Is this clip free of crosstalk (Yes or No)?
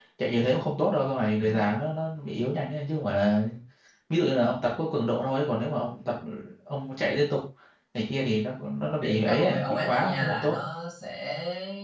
No